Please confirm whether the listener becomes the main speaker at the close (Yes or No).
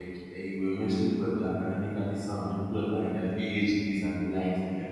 Yes